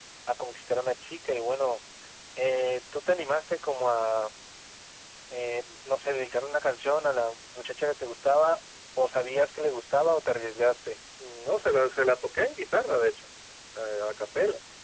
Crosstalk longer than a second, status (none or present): none